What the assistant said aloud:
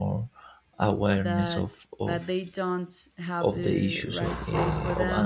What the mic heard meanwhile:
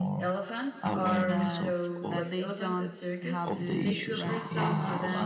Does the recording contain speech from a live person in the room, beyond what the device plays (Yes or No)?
Yes